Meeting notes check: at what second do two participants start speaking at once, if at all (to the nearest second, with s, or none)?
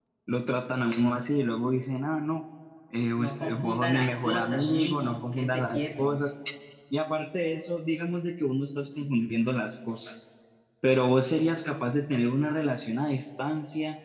3 s